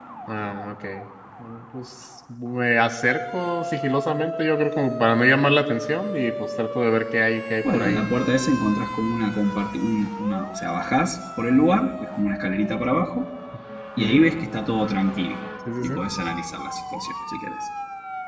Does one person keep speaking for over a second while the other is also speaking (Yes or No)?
No